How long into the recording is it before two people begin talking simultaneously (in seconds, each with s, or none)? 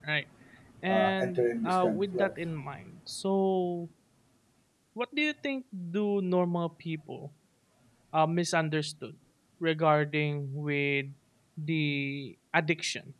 0.9 s